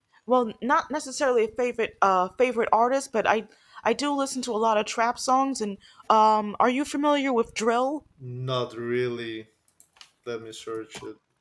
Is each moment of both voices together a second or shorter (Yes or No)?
Yes